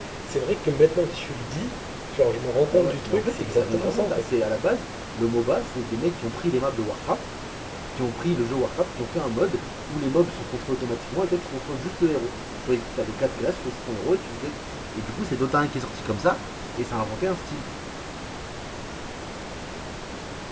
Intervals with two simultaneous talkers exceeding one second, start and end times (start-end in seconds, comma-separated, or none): 2.7-4.3